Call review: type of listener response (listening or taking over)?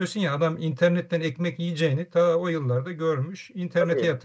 taking over